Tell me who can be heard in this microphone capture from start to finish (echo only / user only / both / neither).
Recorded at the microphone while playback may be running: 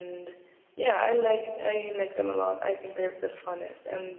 echo only